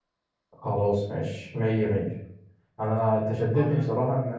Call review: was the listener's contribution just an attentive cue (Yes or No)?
Yes